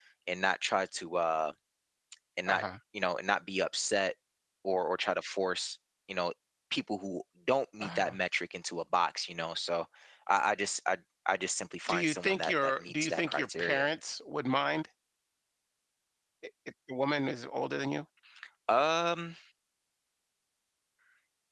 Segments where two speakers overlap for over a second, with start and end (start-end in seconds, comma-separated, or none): 11.9-13.9